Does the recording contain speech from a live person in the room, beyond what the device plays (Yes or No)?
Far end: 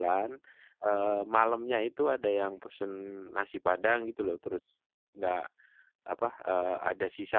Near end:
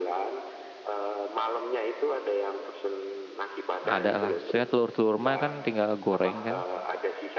Yes